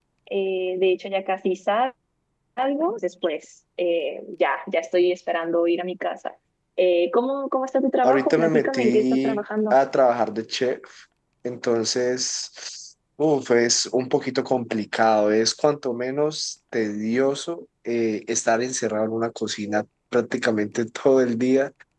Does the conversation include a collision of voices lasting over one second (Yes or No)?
Yes